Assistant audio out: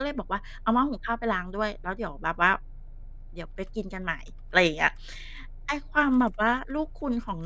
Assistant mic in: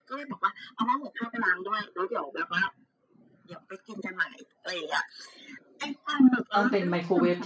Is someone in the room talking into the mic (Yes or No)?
Yes